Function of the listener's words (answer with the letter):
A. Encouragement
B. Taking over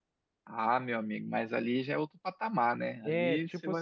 B